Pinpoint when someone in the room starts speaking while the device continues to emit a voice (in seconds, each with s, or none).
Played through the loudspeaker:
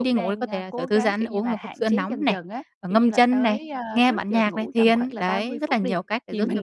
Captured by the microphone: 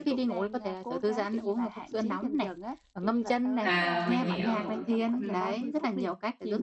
3.6 s